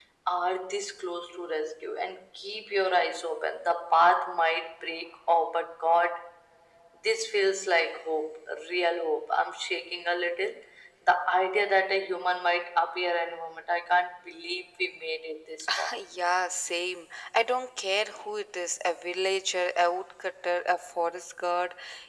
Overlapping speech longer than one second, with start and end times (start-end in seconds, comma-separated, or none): none